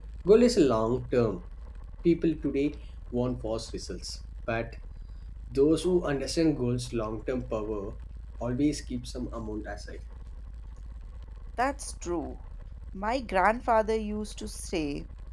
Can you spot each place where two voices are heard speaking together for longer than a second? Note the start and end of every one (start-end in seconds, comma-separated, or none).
none